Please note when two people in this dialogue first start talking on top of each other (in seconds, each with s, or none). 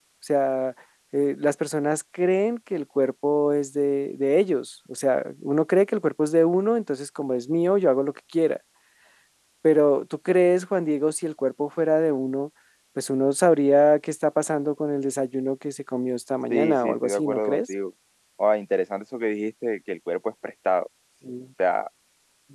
16.5 s